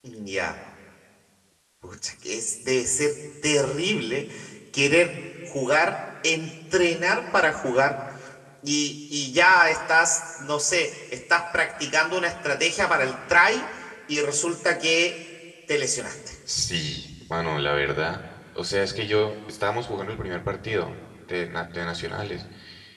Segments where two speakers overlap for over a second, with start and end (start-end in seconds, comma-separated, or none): none